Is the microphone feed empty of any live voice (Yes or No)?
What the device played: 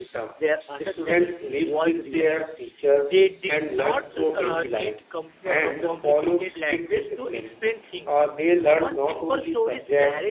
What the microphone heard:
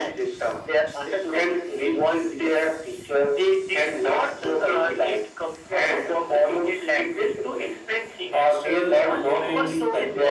No